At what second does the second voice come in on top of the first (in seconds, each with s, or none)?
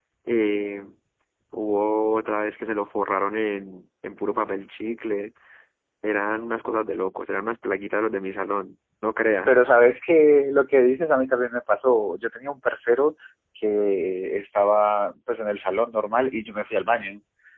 none